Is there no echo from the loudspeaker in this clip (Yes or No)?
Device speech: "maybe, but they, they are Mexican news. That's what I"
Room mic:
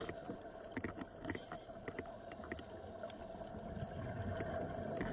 Yes